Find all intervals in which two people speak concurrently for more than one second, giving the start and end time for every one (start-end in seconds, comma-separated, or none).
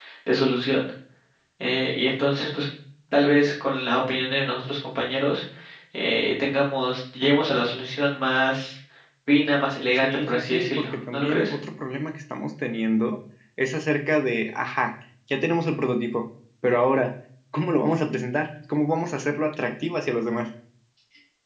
10.0-11.5